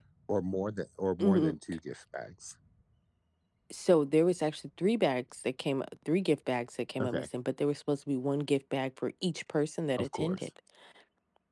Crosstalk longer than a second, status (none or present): none